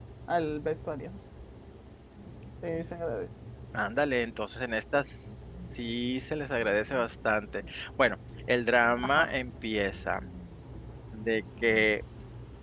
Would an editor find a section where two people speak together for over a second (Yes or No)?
No